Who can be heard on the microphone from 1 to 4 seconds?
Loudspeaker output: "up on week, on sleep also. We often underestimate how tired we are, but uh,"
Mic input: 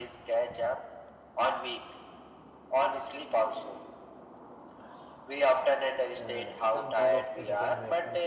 echo only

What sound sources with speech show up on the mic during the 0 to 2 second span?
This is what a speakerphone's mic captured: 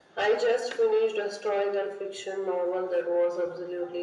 echo only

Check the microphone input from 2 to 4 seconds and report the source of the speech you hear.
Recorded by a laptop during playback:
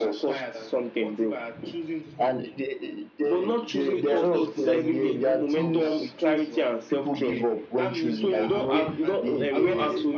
both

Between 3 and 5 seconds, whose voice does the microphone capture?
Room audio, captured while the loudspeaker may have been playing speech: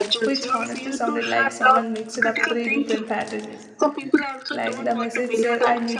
both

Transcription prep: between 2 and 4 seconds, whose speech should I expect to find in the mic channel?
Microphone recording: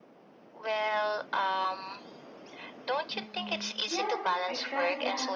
both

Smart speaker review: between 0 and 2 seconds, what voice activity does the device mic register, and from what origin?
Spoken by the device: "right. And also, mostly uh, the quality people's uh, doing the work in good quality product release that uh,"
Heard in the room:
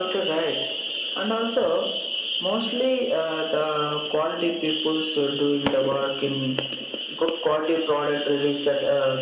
echo only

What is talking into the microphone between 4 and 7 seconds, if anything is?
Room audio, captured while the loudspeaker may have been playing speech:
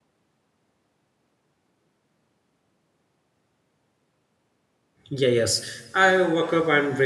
user only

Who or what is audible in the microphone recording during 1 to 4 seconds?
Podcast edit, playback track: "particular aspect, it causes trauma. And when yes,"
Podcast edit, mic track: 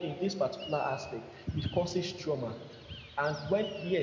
echo only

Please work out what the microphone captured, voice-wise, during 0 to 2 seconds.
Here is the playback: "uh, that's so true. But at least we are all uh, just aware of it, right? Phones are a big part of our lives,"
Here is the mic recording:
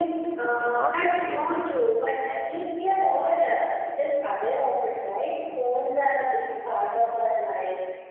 both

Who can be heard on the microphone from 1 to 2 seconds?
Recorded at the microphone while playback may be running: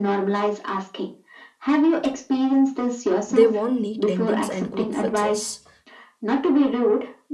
echo only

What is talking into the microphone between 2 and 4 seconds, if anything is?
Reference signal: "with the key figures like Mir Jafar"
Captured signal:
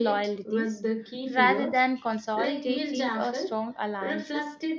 both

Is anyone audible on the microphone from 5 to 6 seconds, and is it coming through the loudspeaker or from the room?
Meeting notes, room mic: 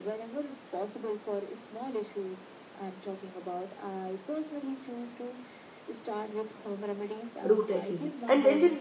echo only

